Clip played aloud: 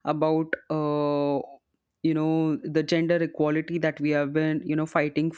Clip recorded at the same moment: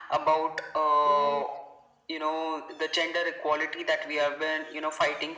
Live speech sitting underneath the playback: Yes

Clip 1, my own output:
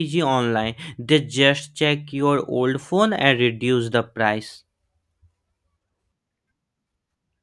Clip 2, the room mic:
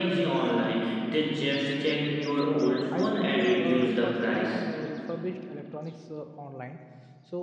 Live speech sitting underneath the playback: Yes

